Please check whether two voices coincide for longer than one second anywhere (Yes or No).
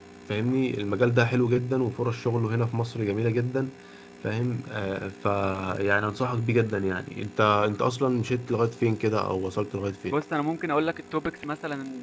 No